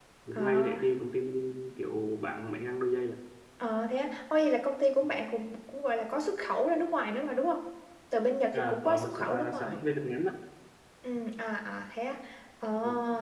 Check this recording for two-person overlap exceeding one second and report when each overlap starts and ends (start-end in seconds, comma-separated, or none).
8.5-9.8